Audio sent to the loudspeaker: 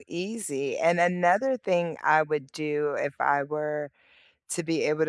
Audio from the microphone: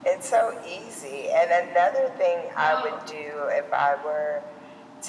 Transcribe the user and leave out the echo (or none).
No,